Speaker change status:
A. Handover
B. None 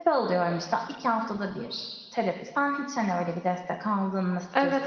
A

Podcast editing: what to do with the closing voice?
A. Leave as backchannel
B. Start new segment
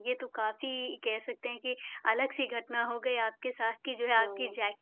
A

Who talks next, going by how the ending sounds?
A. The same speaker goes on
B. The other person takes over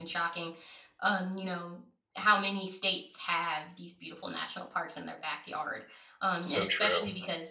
A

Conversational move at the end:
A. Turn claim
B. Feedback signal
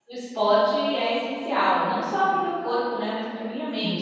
A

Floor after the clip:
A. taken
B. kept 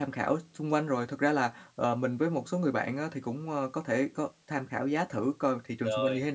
B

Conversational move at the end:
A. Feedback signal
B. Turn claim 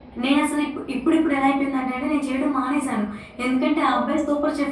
A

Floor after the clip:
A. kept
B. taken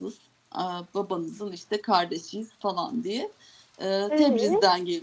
A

